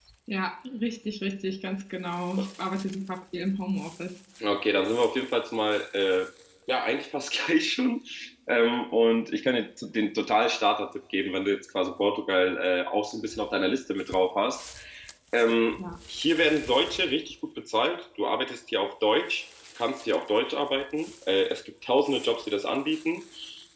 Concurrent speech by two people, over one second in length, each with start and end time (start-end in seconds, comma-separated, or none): none